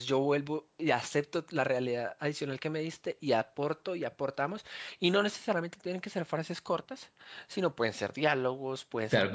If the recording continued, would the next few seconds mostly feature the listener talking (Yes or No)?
Yes